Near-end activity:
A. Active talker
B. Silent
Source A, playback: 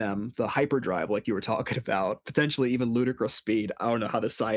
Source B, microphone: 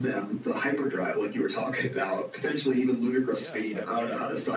A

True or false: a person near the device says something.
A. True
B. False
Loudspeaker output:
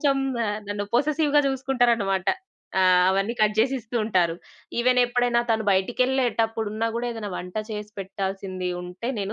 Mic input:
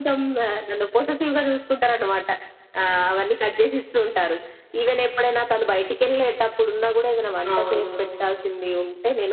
A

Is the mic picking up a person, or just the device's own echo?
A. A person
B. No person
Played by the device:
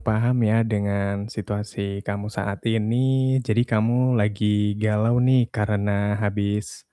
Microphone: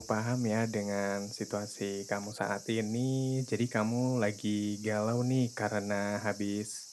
B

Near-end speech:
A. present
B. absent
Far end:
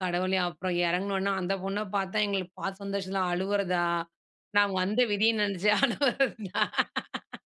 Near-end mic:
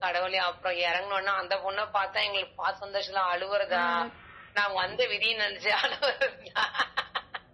A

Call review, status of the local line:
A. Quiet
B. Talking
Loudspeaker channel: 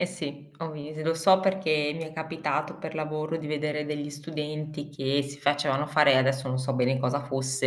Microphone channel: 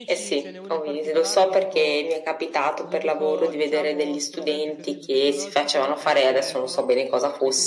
B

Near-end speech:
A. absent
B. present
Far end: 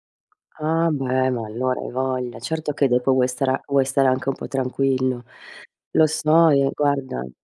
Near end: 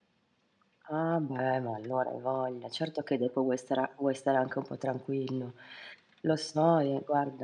A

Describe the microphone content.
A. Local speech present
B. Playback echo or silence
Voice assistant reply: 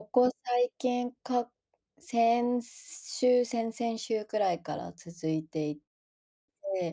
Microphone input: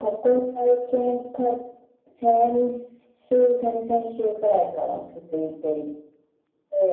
B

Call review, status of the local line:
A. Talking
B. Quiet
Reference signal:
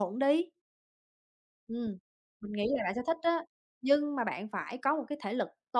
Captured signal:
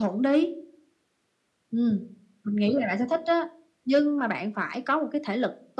B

